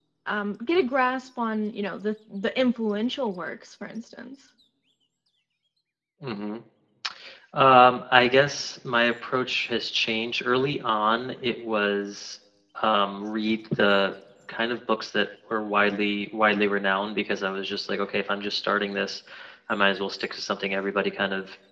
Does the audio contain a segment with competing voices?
No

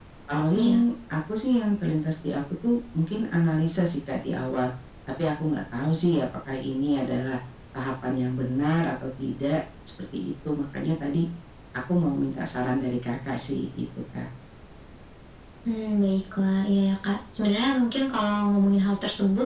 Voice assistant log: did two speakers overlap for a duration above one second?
No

